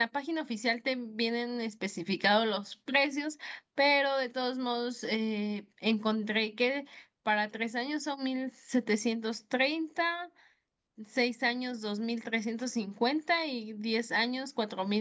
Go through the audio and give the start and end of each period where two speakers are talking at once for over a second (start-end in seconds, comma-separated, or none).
none